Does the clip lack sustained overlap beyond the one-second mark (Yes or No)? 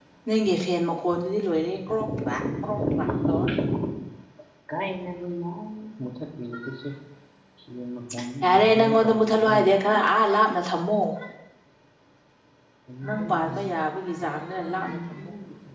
No